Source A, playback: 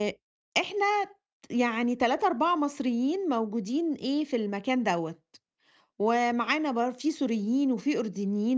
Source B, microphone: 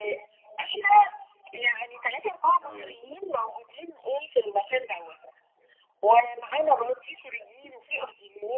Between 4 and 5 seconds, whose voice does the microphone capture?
echo only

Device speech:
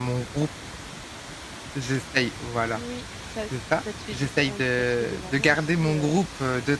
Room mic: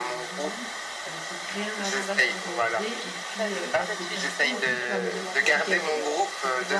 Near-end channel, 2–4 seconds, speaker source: both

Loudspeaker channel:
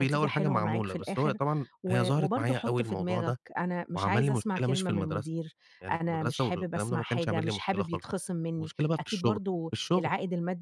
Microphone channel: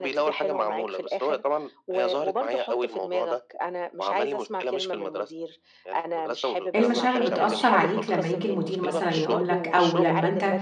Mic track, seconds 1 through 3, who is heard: echo only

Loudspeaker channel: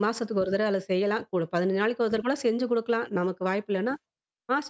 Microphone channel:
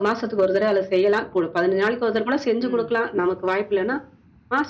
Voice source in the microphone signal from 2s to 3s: both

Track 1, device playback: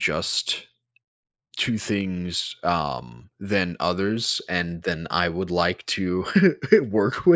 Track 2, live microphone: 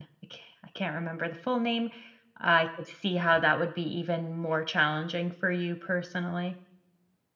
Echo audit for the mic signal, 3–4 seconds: user only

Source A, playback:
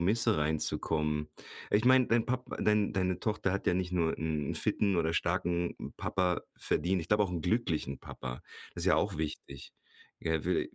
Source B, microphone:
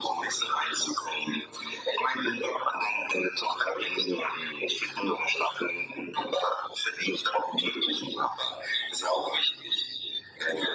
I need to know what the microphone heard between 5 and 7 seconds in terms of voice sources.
echo only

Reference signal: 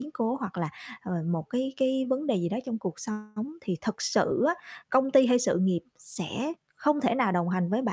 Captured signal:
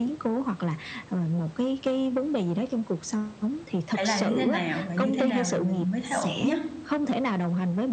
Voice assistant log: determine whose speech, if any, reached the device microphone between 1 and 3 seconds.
echo only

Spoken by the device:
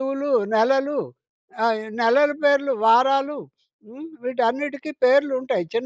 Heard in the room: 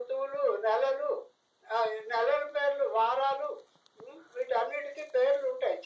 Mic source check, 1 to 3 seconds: echo only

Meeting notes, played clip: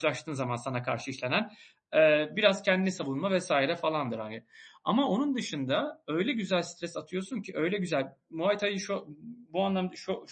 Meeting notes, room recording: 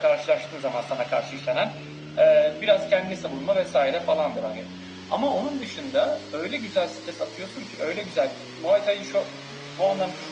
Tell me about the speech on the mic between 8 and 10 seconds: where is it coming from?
echo only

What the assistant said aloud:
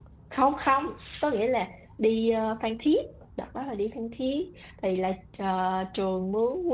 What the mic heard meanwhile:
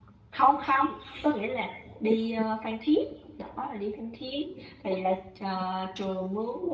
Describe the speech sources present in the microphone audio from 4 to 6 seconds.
echo only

